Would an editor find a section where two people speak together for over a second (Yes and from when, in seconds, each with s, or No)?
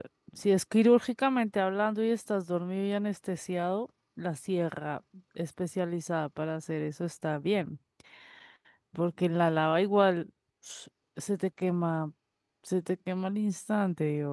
No